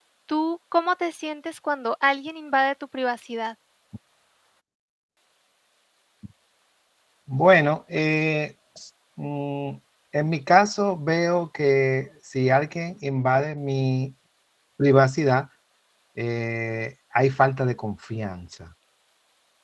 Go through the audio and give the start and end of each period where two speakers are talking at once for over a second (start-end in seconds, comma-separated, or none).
none